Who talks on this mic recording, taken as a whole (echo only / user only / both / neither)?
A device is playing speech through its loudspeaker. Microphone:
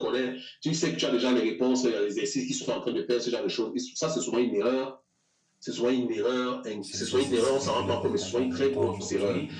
both